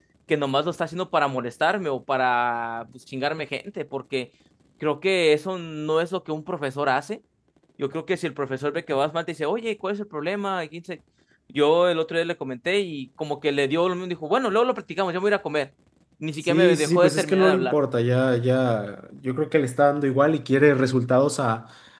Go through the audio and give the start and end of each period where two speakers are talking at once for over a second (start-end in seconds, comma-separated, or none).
16.5-17.8